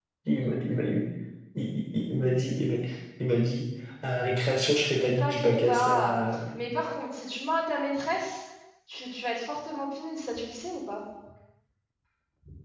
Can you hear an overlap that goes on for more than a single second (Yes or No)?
Yes